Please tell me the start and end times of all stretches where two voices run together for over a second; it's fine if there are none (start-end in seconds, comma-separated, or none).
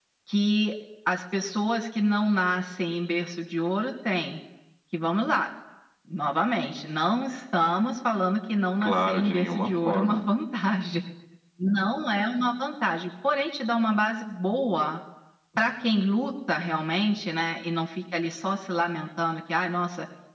8.8-10.2